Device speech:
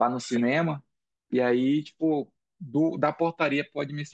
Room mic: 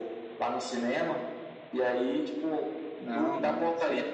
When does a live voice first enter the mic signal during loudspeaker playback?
3.0 s

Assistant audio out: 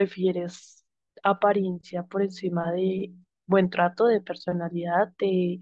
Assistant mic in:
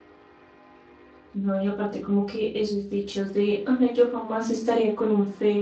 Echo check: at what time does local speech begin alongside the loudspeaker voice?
1.3 s

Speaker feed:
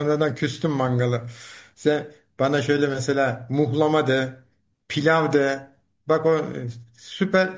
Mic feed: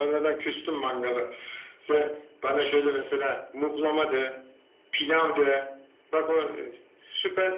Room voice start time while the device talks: none

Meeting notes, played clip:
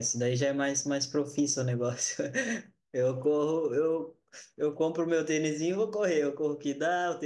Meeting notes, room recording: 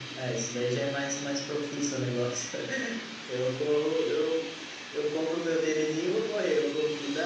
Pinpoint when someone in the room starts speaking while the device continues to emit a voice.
none

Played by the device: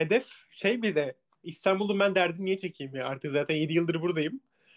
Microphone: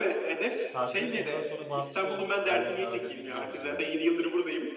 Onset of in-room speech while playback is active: 0.6 s

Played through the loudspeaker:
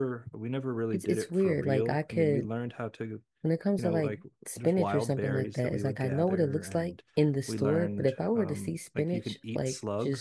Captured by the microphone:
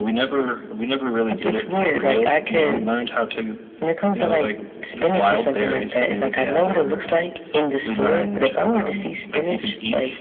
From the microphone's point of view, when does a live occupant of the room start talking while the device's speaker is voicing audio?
none

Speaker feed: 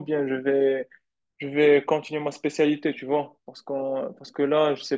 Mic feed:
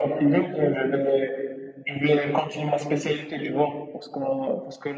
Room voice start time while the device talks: none

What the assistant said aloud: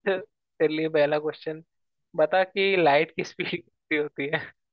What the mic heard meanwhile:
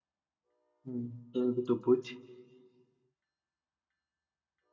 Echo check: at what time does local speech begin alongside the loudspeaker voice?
0.9 s

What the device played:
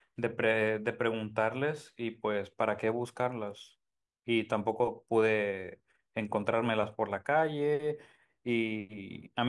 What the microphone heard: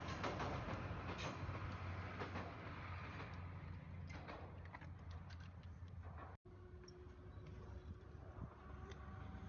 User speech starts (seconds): none

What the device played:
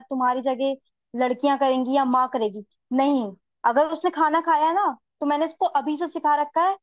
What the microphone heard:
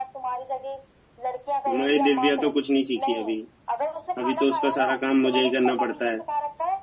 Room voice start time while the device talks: 1.7 s

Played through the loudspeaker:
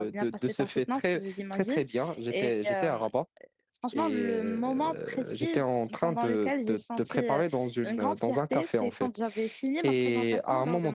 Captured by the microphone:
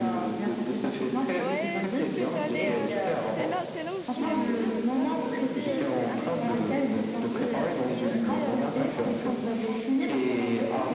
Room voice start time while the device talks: 1.4 s

